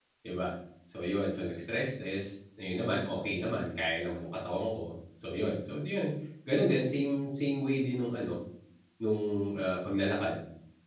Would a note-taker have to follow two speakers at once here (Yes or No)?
No